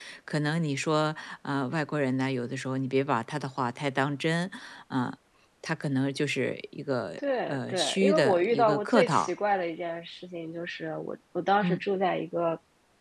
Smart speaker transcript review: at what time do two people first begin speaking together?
7.2 s

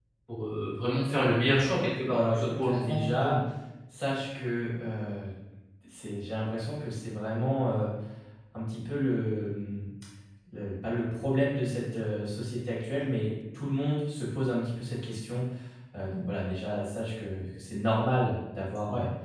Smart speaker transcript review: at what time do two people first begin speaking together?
2.1 s

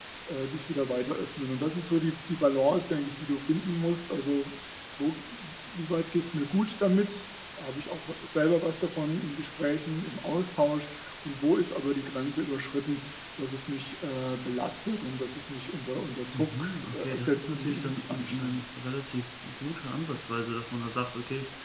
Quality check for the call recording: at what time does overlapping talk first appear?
16.3 s

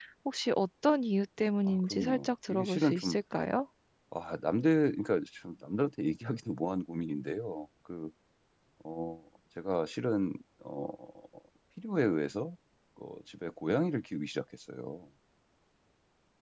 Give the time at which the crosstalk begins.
1.7 s

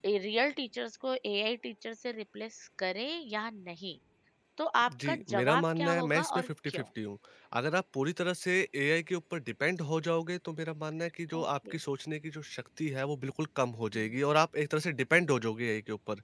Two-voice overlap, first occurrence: 4.9 s

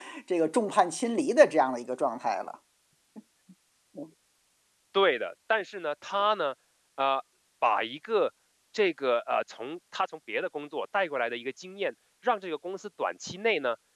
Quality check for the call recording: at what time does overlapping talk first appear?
none

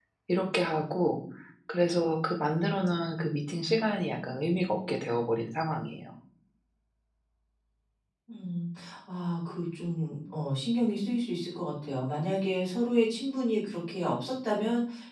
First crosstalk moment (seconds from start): none

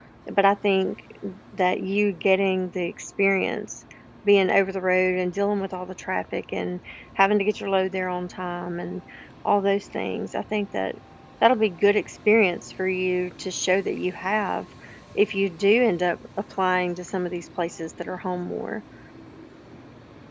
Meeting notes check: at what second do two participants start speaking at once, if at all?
none

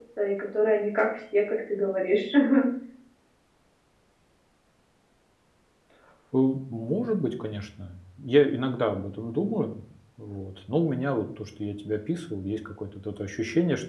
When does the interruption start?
none

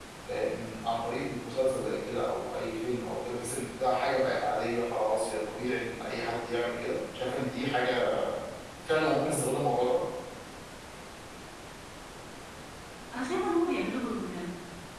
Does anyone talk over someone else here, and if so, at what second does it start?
none

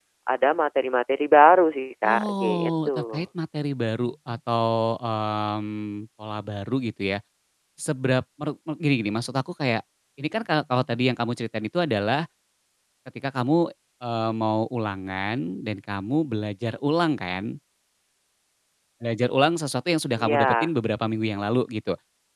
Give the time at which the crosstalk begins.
2.0 s

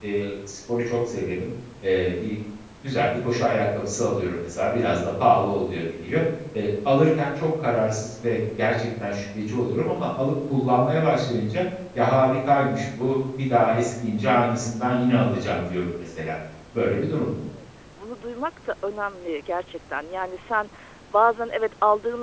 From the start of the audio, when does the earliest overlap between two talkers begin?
none

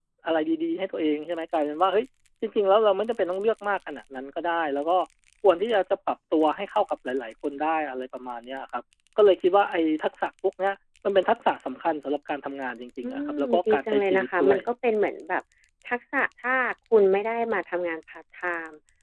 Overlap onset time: 13.0 s

